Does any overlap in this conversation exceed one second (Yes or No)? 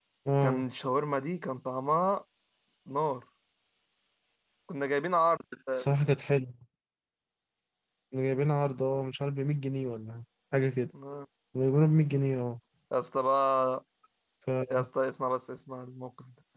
No